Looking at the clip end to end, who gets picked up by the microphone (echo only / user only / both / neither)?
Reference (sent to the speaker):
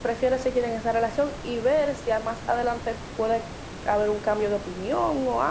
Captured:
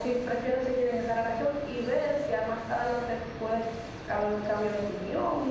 echo only